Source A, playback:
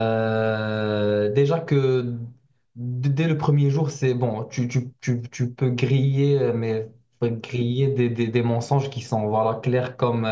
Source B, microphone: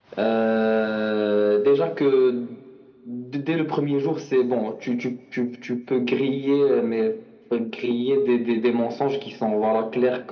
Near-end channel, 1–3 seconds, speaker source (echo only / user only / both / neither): echo only